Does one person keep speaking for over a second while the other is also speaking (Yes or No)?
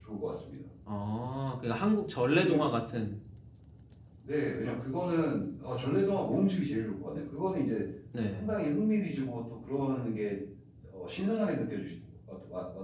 No